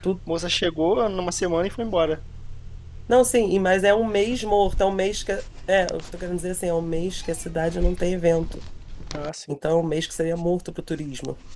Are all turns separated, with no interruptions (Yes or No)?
Yes